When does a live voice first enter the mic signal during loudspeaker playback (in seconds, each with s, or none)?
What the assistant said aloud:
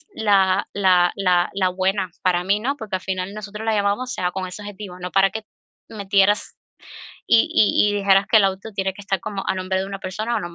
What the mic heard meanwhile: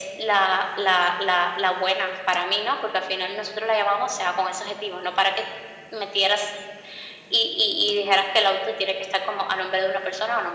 none